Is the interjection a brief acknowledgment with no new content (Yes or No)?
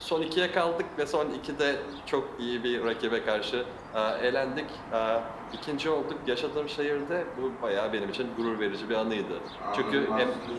No